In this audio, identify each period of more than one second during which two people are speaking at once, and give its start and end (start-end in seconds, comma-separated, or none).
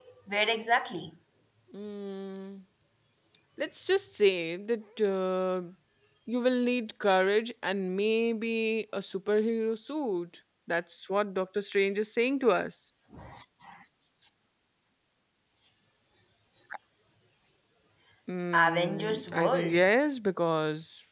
18.5-19.9